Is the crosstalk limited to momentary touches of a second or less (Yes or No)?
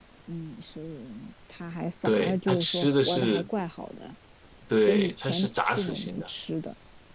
No